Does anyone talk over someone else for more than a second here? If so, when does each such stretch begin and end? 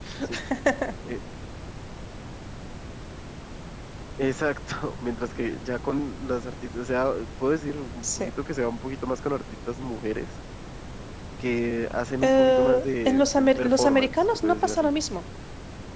12.2-14.9

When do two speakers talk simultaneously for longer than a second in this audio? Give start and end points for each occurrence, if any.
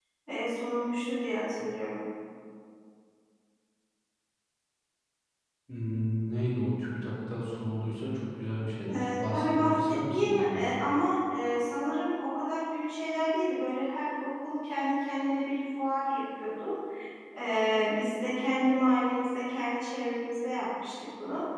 8.9-10.8

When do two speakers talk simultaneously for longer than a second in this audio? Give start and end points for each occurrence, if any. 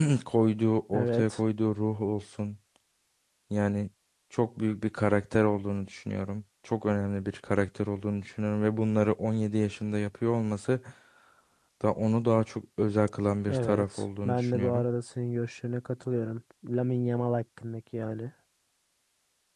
13.5-14.8

